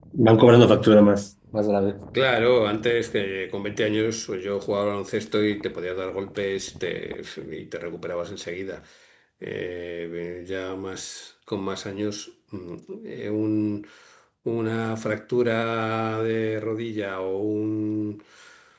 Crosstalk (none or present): none